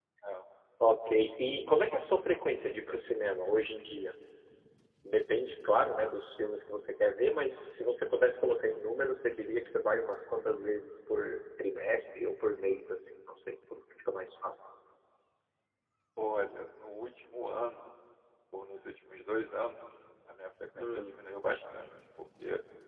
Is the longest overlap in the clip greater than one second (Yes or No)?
No